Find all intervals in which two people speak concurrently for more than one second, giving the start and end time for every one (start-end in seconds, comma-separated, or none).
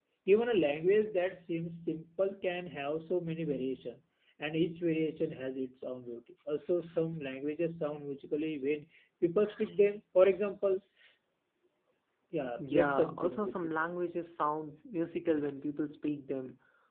12.6-13.9